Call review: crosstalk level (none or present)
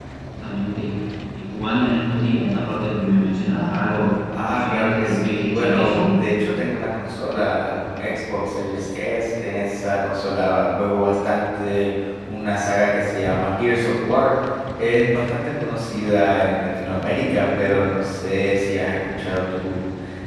present